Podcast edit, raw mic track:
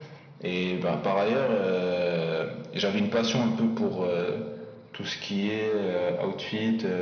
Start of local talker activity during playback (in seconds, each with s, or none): none